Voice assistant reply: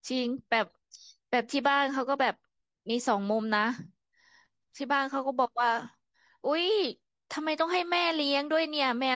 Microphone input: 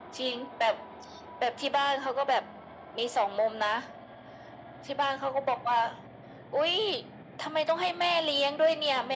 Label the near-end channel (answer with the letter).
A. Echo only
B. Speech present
A